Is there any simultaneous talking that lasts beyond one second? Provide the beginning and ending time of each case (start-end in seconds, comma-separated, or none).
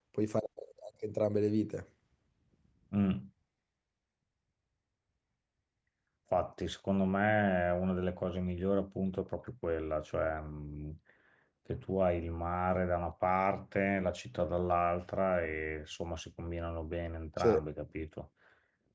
none